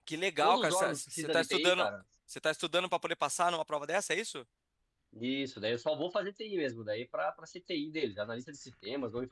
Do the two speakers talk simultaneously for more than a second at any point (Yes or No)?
Yes